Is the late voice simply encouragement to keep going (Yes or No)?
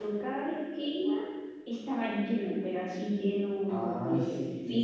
No